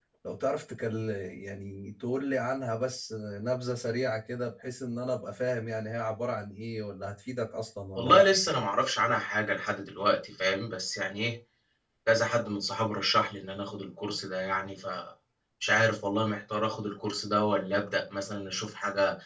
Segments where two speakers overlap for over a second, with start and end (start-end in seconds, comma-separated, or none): none